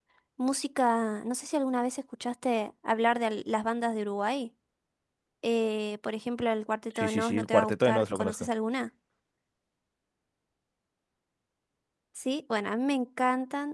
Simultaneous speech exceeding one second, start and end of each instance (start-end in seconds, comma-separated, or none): 7.0-8.3